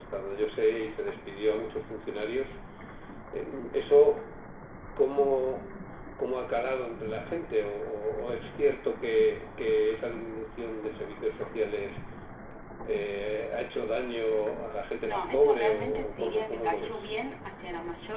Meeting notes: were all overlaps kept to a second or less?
No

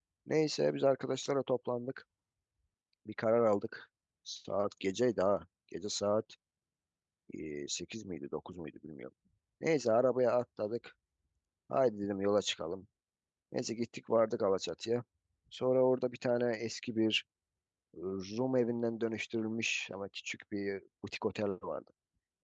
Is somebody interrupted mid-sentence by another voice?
No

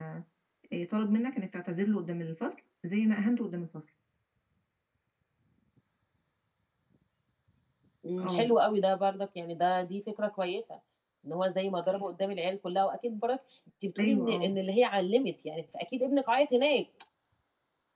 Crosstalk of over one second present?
No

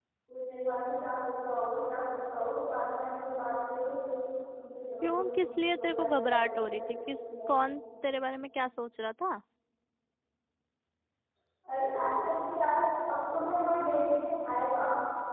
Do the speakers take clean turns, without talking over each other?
No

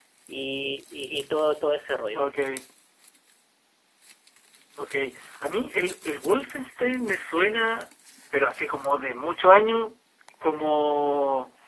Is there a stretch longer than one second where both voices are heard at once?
No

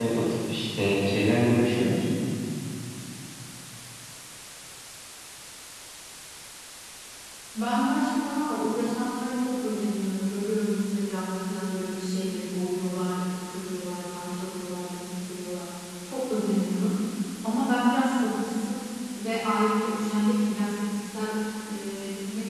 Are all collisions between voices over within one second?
Yes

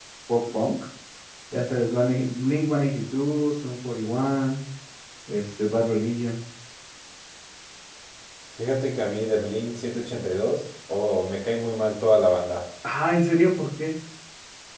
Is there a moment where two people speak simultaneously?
No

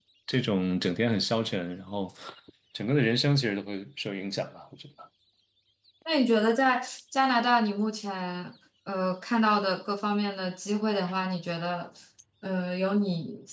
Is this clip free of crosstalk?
Yes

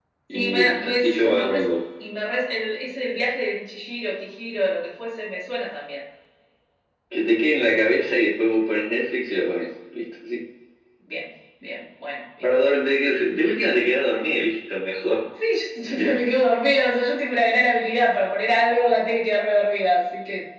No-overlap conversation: No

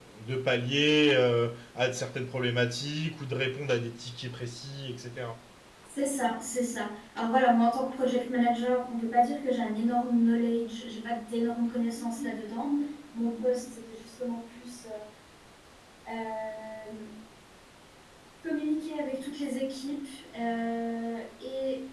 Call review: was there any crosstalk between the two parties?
No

